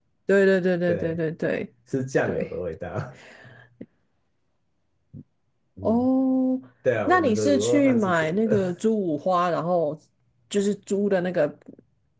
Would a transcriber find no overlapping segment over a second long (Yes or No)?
No